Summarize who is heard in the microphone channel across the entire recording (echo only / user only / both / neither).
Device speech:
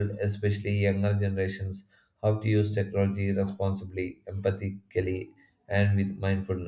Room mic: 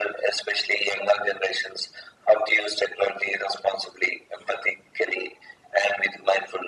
echo only